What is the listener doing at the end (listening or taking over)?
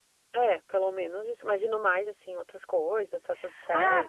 taking over